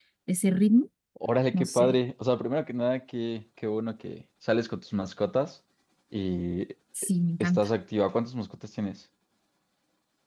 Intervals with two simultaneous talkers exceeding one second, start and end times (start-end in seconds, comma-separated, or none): none